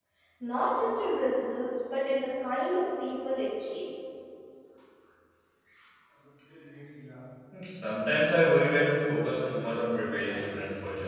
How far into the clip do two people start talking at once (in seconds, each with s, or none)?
none